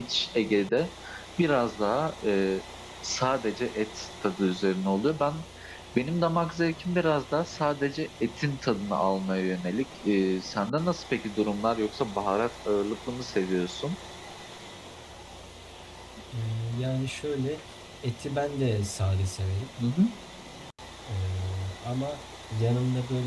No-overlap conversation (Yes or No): Yes